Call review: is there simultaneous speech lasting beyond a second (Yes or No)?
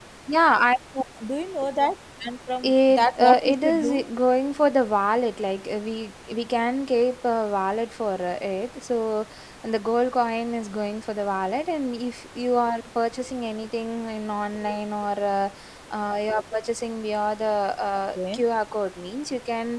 Yes